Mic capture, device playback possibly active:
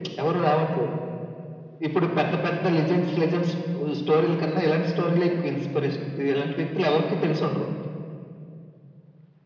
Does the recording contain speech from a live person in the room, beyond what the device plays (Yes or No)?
No